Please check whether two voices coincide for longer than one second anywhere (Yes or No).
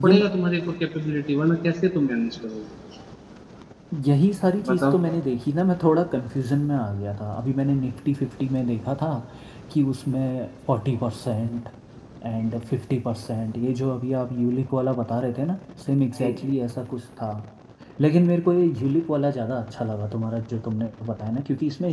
No